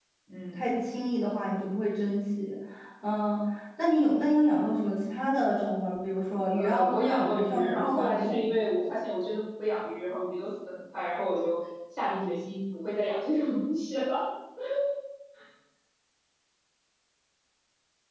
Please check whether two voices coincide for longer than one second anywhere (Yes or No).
Yes